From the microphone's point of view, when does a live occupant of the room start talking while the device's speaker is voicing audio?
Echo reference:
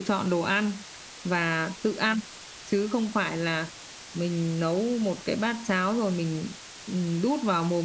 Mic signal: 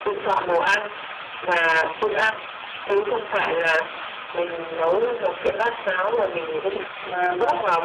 7 s

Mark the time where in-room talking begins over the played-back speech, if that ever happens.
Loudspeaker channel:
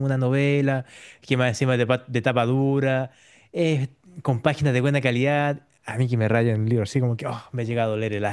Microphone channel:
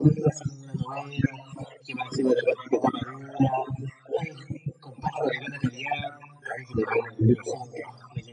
none

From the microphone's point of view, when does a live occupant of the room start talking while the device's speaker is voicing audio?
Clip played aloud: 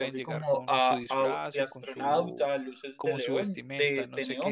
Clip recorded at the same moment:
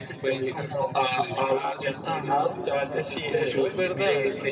2 s

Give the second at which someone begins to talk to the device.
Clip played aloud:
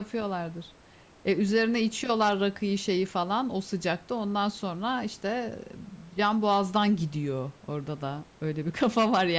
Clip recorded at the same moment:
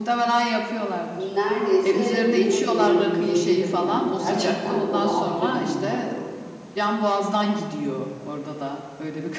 1 s

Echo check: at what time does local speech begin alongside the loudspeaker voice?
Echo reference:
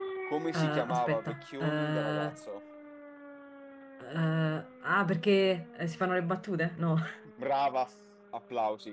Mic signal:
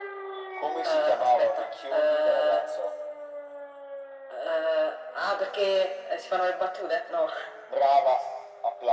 none

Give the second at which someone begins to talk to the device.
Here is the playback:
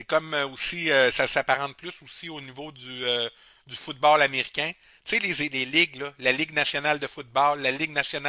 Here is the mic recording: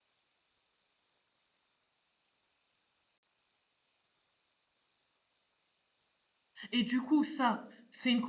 7 s

